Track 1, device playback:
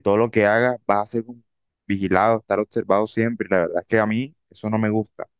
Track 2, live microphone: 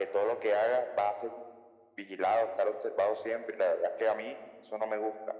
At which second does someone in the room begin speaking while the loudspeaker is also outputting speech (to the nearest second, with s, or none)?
none